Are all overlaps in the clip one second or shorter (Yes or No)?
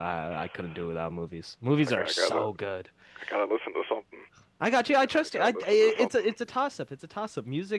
No